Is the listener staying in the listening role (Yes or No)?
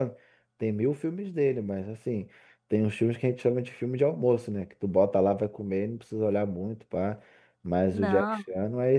Yes